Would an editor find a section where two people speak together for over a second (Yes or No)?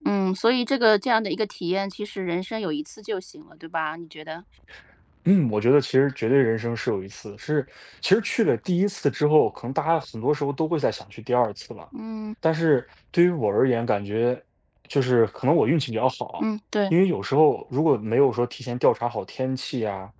No